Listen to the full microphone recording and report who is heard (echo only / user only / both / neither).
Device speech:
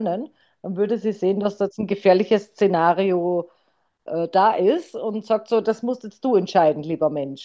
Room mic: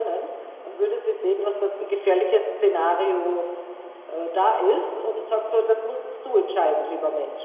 echo only